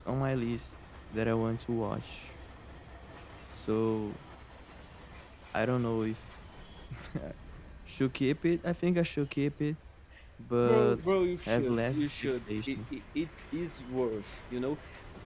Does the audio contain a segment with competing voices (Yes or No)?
Yes